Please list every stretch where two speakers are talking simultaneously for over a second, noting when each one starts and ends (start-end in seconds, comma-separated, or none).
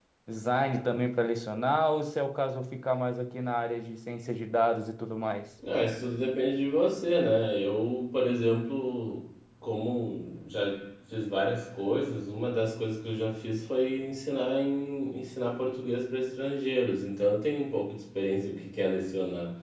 none